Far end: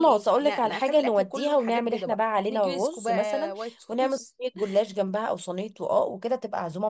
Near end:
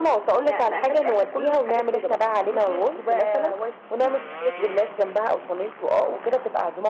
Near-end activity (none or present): none